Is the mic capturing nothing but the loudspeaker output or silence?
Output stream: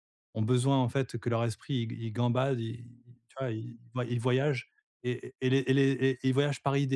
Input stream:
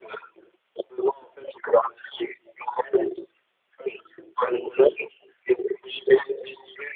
Yes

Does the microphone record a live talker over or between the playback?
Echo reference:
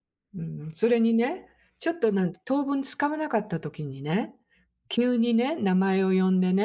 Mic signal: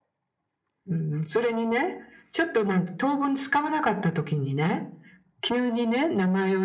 No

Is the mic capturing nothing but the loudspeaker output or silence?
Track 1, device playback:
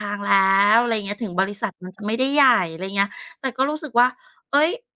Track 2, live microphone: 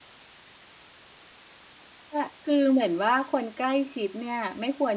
No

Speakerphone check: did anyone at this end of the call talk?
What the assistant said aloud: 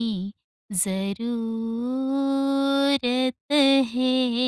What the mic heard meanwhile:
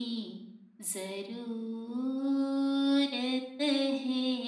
No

